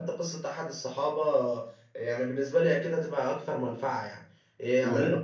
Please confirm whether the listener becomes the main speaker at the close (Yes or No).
No